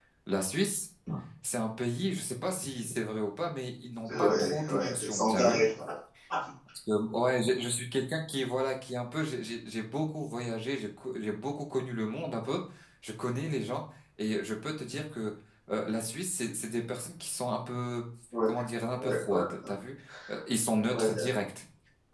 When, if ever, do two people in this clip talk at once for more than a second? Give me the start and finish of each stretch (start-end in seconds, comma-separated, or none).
4.1-5.6